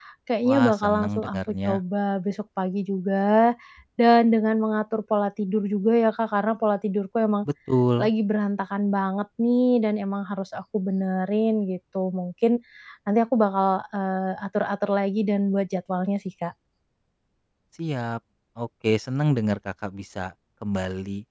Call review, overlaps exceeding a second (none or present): present